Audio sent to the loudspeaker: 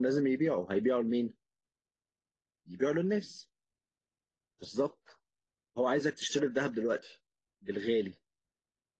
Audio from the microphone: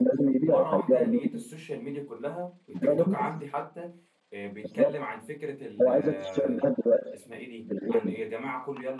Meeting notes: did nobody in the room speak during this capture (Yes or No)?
No